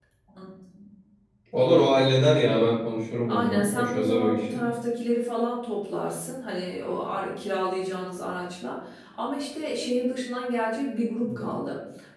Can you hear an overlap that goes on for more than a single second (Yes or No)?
Yes